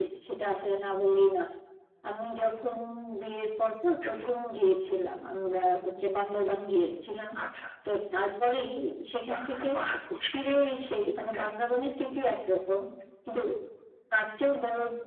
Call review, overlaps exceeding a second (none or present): none